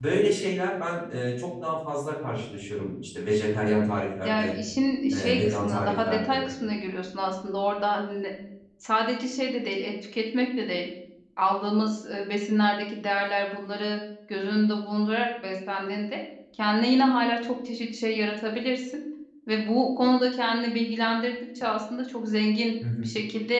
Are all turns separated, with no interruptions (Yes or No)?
No